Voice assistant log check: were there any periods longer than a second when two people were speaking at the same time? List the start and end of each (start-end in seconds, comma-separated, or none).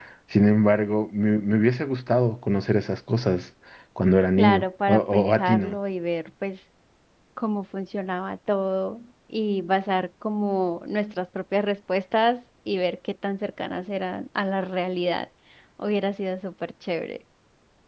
4.4-5.8